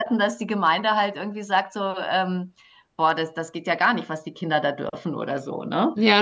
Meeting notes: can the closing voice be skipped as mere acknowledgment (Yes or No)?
No